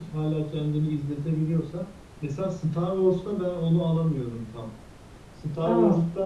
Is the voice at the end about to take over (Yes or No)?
No